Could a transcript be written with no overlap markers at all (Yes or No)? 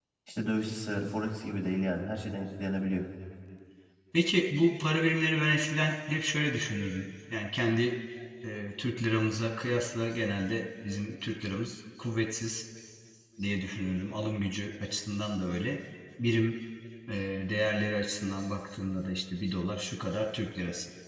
Yes